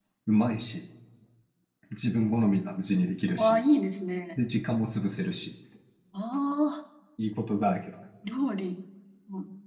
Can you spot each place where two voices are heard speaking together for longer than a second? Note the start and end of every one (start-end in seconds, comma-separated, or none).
none